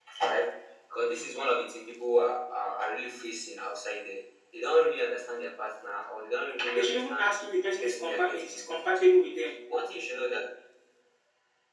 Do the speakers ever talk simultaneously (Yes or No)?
Yes